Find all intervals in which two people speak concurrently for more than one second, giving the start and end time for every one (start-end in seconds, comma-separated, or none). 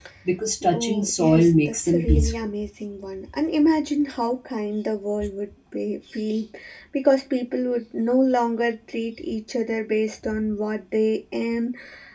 0.7-2.4